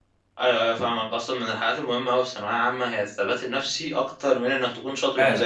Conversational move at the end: taking over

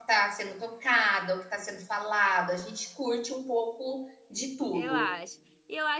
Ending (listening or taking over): taking over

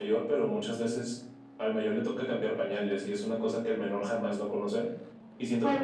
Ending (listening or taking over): listening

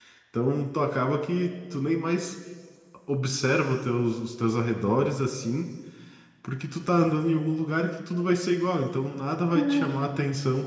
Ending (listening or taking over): listening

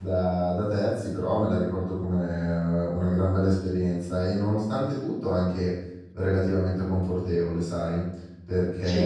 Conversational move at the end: listening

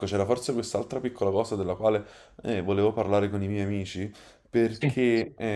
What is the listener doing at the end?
listening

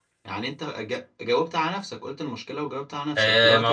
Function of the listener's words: taking over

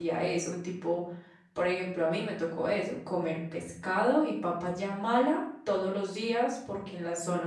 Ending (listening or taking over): listening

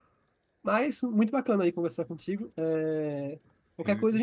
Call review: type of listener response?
listening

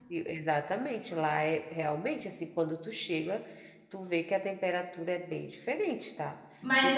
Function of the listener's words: taking over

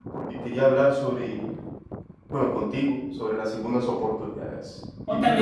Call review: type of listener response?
taking over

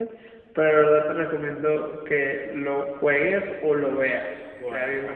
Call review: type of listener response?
taking over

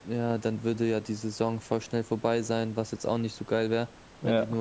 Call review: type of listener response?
listening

